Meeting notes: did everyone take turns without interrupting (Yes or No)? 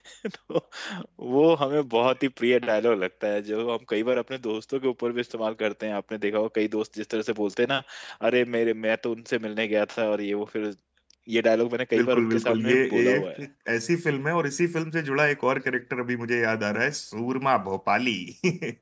No